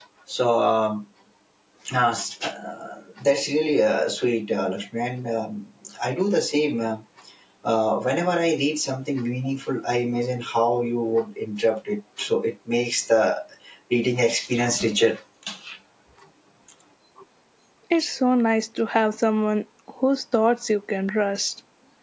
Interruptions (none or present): none